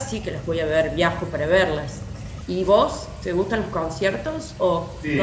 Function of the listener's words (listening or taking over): taking over